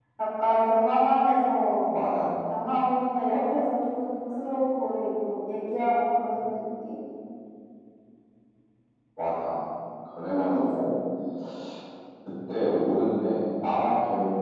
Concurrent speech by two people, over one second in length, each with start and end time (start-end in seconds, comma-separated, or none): none